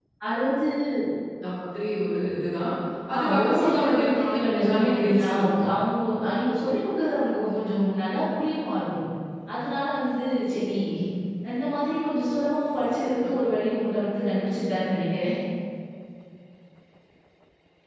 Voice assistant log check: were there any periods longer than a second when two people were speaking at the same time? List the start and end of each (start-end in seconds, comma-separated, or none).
3.2-5.5